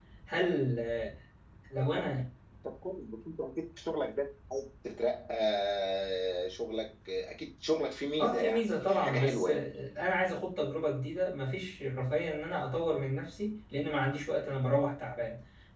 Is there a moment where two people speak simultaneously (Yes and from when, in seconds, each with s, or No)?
Yes, from 8.2 s